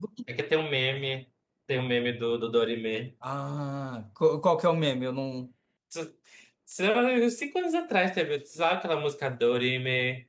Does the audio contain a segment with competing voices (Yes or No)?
No